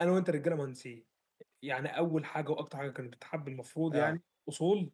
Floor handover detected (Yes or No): No